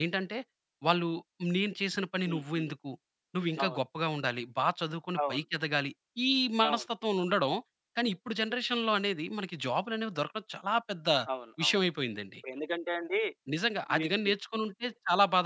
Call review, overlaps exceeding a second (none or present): none